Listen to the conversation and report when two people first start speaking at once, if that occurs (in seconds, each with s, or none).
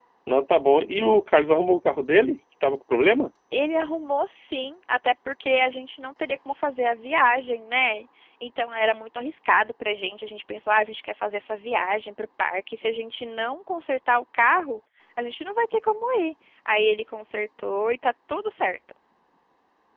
none